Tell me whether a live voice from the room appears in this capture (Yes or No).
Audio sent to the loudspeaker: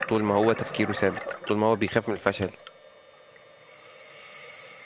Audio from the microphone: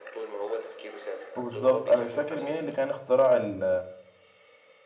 Yes